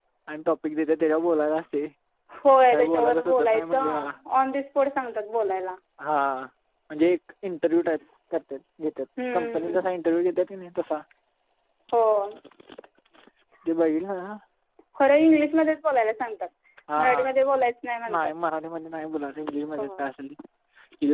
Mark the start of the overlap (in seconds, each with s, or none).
2.7 s